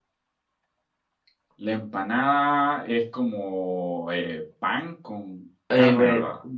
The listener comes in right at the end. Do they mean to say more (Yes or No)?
Yes